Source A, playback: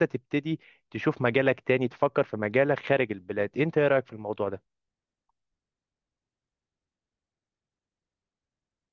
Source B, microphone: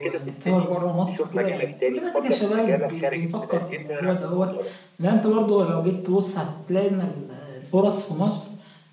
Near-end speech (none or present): present